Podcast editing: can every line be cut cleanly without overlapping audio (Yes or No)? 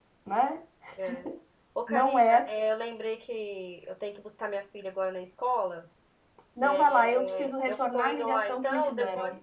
No